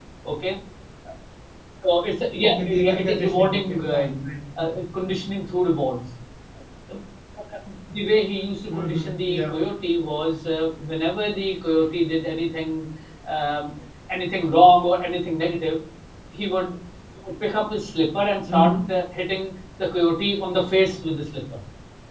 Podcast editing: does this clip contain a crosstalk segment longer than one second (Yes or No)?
Yes